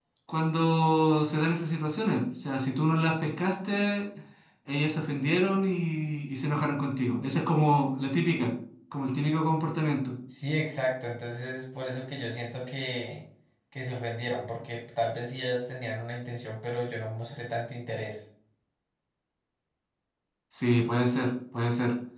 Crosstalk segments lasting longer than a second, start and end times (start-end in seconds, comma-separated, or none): none